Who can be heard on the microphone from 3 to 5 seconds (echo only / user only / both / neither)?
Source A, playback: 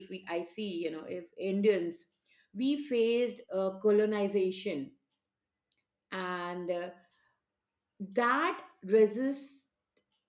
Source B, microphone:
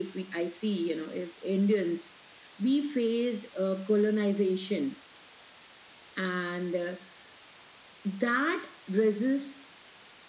echo only